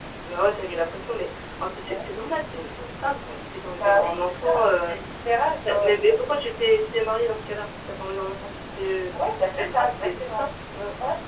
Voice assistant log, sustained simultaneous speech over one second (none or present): present